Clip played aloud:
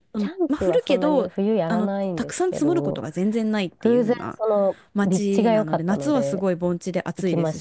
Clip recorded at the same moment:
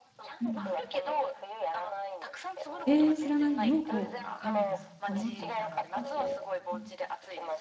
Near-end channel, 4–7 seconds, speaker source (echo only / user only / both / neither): both